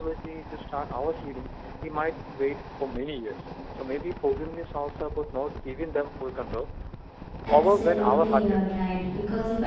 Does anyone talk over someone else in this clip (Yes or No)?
Yes